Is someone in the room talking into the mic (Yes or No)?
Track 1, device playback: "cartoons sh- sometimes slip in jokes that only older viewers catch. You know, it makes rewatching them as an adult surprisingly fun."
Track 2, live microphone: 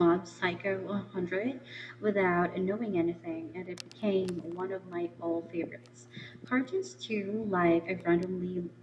Yes